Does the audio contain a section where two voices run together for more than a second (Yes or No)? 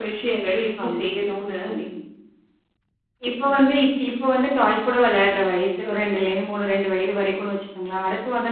No